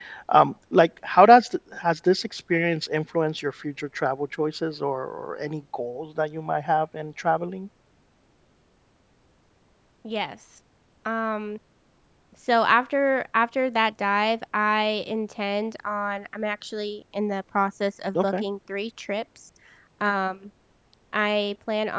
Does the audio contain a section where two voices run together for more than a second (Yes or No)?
No